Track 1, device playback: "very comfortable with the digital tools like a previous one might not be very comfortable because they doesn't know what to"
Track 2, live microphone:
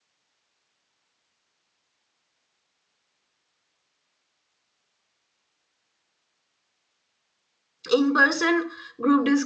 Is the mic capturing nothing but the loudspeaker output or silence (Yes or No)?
No